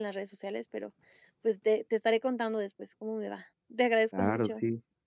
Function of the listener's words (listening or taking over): taking over